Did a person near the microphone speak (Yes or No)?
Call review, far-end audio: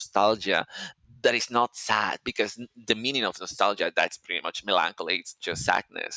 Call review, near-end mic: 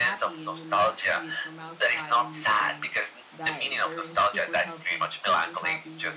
Yes